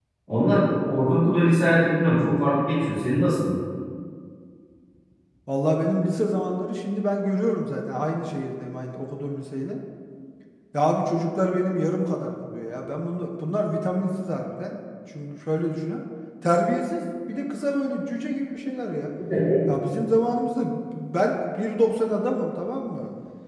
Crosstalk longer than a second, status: none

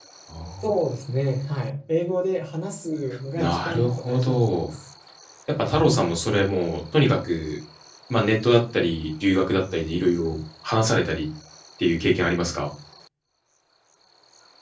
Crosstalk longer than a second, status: present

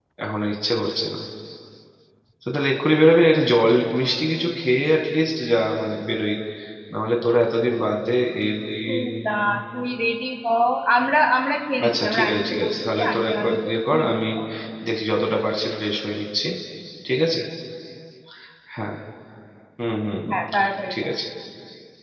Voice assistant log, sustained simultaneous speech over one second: present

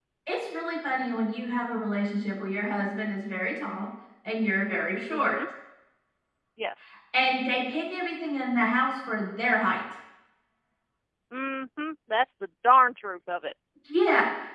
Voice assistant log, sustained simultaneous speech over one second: none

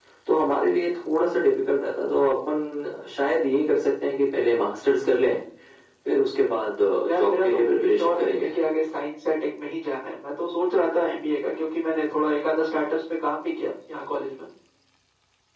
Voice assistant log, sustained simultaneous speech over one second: present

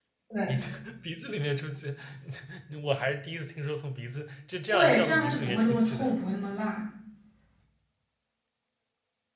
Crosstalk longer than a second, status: present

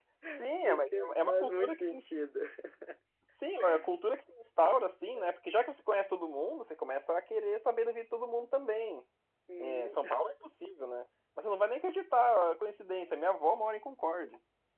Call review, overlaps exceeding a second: present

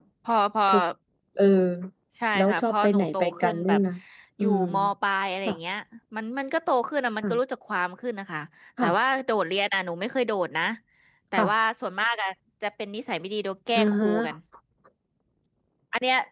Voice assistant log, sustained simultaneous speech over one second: present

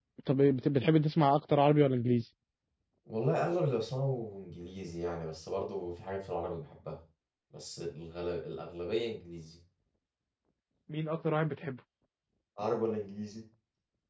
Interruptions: none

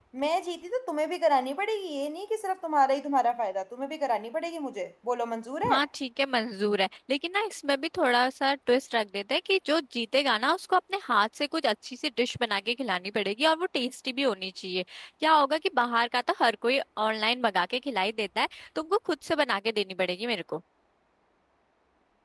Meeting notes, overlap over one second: none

